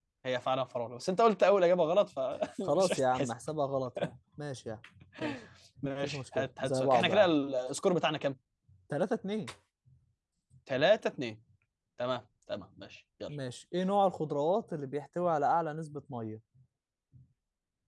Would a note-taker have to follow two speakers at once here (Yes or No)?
Yes